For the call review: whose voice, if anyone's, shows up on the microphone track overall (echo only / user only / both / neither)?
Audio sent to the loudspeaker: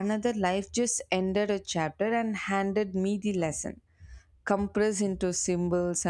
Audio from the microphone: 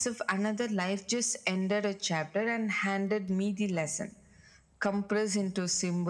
echo only